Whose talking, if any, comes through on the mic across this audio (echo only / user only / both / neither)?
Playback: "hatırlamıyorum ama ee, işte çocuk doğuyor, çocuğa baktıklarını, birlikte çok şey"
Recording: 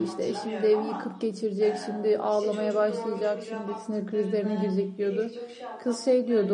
both